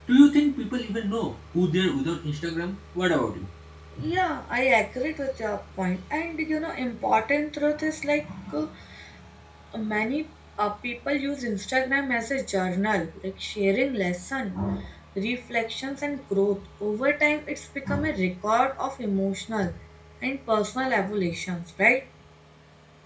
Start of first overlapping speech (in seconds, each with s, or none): none